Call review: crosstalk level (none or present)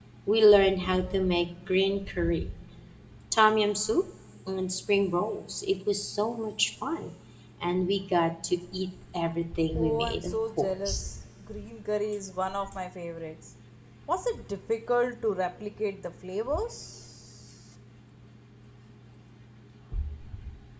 present